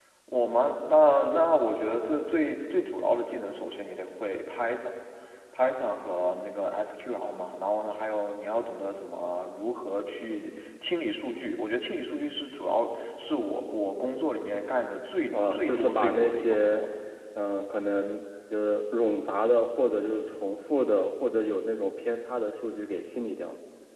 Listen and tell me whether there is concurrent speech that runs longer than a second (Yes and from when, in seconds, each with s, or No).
Yes, from 15.3 s